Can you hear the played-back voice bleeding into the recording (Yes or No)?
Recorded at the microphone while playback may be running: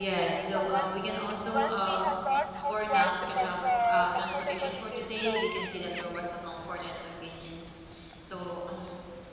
Yes